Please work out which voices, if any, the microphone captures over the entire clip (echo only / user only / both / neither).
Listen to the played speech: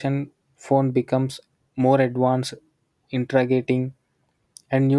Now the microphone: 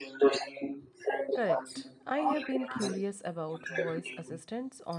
both